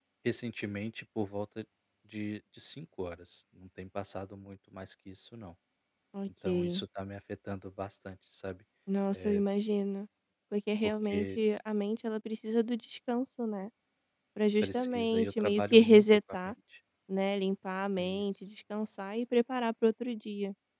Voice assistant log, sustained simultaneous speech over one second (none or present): present